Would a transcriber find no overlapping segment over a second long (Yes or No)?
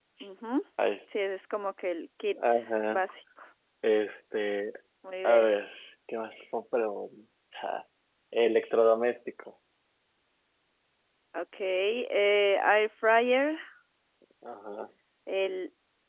Yes